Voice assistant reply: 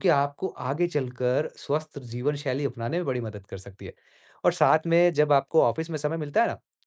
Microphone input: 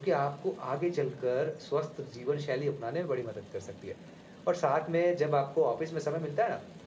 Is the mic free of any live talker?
Yes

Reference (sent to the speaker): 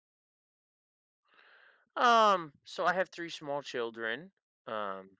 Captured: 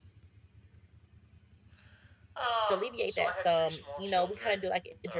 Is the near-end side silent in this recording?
No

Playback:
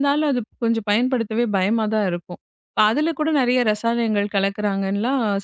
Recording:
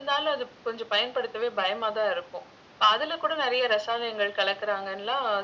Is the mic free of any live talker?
Yes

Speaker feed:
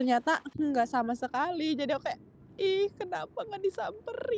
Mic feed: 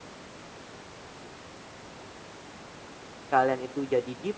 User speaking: Yes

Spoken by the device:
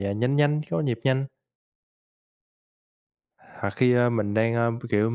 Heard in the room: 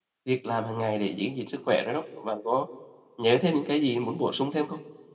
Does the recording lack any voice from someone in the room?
No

